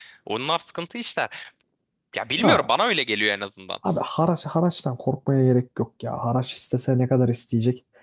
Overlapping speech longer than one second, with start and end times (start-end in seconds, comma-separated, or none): none